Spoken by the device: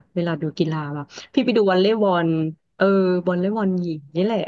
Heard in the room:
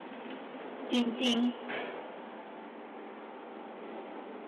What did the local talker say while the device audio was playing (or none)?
จริงจริง